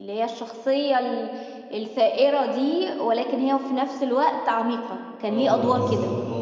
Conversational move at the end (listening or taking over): taking over